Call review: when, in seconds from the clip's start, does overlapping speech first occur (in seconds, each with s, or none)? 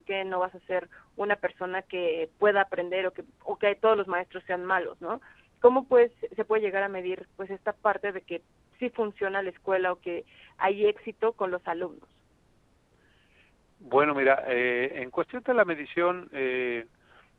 none